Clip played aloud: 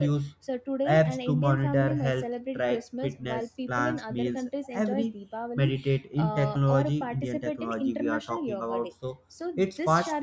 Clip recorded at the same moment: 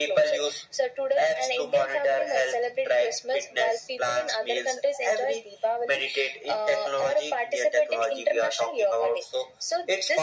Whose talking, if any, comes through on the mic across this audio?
echo only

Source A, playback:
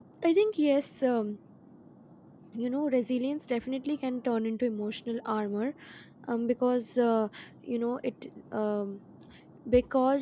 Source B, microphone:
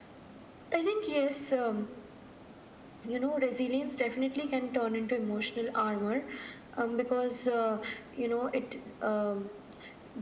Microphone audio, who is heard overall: echo only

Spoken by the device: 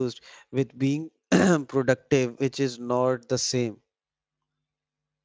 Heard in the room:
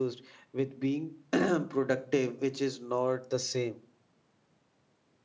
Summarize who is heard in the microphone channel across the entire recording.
echo only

